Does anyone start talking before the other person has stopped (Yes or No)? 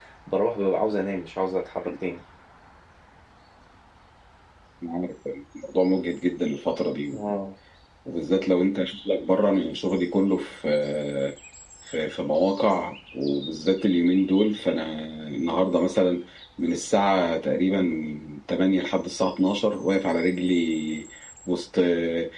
No